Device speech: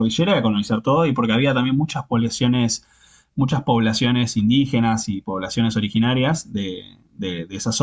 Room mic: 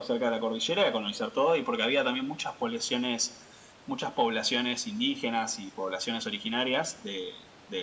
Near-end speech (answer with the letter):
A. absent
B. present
A